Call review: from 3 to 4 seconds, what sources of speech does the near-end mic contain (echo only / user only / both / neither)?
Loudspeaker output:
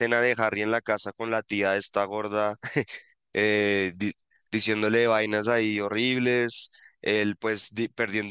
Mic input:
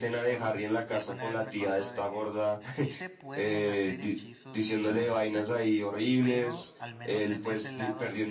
both